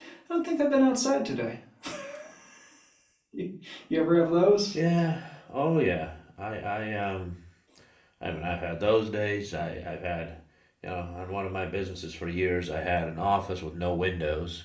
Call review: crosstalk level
none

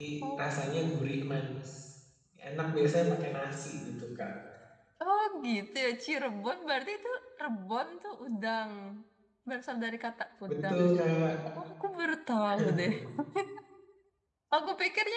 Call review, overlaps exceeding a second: none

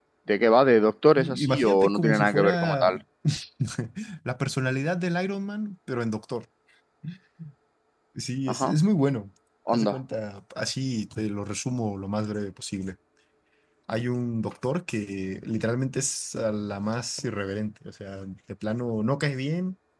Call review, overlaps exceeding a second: present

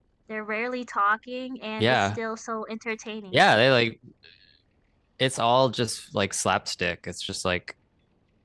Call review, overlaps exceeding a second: none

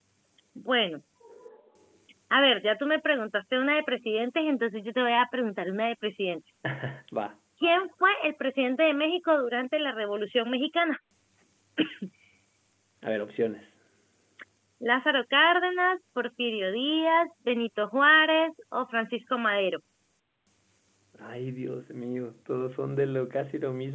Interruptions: none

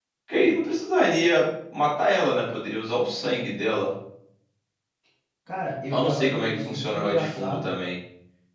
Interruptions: present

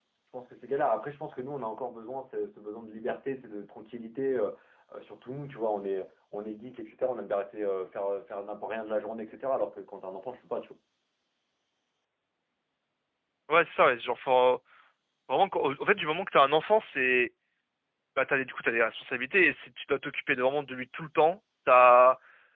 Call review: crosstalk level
none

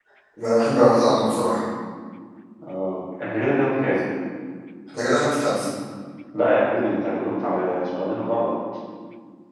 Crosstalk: none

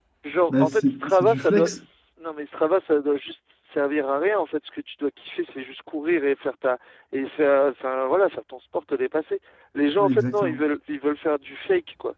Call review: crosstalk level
present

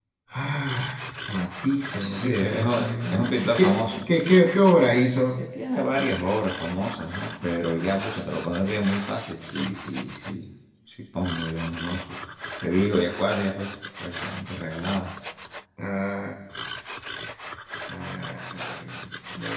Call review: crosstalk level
present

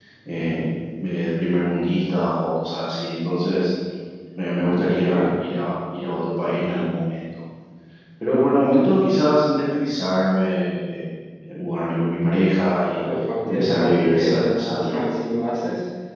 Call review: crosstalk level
present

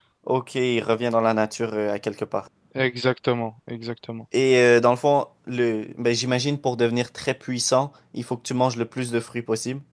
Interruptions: none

